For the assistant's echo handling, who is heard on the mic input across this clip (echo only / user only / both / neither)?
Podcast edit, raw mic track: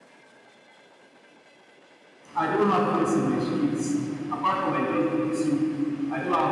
user only